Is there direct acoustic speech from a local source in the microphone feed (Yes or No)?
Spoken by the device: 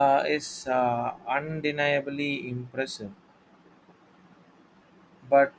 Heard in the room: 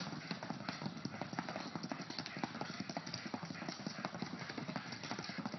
No